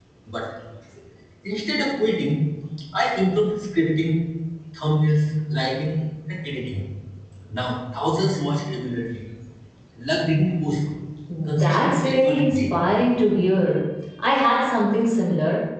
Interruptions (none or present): present